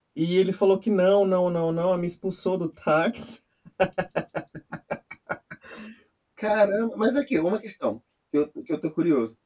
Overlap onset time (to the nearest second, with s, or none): none